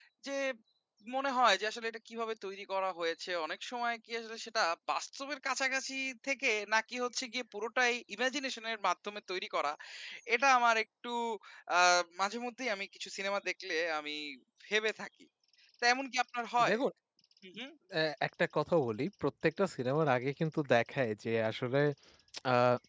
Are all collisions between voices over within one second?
Yes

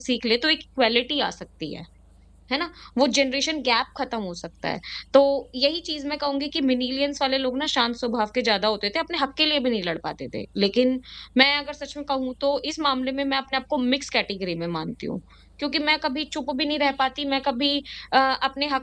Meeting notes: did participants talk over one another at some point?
No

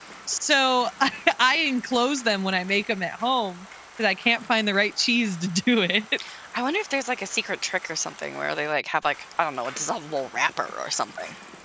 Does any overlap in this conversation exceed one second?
No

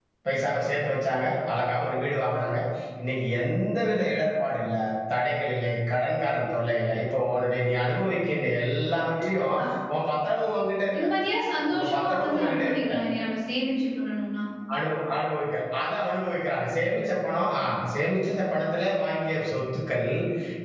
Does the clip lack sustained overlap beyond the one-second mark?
No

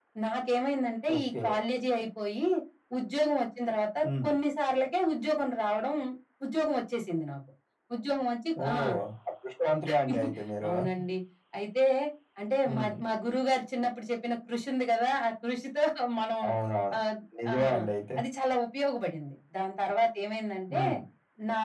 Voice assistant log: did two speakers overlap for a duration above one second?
No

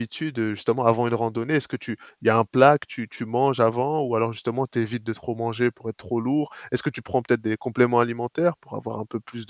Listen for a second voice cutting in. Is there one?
No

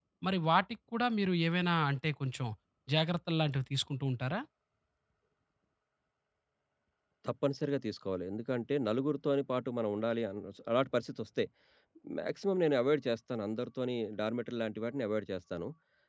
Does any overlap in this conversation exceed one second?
No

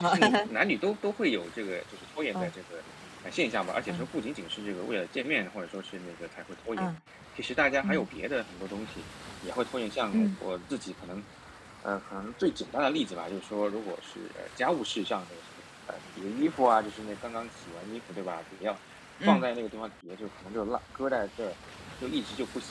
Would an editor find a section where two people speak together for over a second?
No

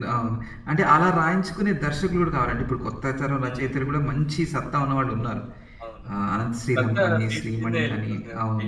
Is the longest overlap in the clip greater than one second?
Yes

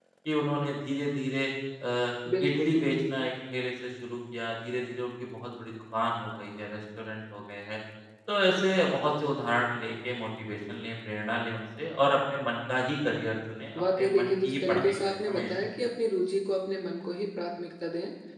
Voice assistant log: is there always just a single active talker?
No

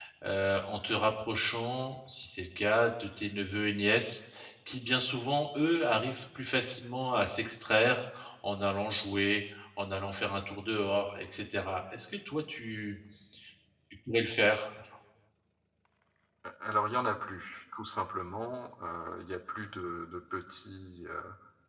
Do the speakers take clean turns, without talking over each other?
Yes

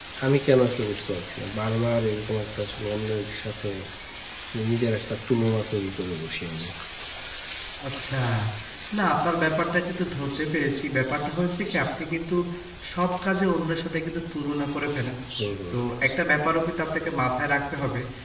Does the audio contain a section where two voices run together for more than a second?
No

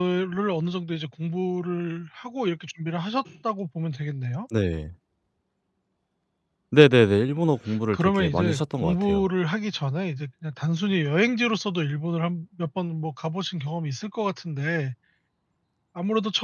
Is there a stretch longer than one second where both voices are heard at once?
Yes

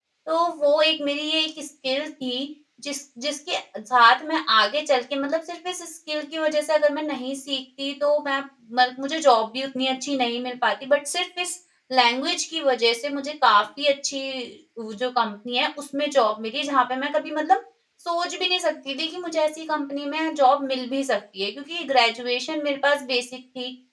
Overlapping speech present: No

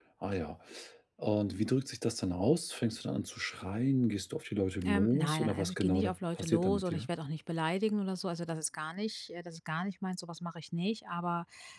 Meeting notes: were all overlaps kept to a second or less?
No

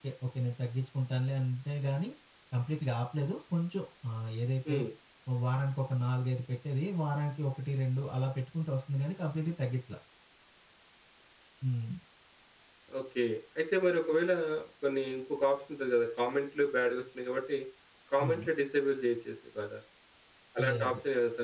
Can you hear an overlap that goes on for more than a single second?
No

